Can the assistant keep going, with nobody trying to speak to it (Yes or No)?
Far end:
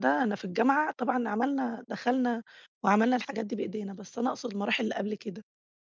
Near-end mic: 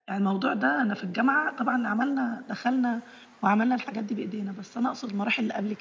Yes